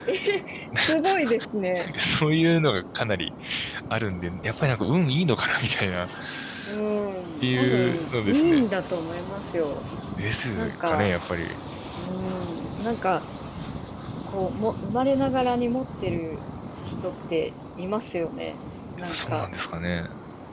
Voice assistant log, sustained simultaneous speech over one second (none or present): present